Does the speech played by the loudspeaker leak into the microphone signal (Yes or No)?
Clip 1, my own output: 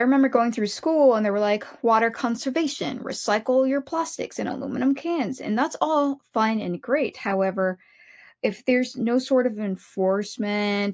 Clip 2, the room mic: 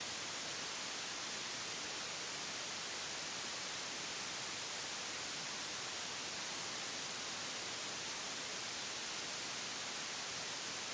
No